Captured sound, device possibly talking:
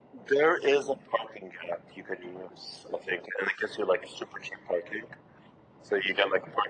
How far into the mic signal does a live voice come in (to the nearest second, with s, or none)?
none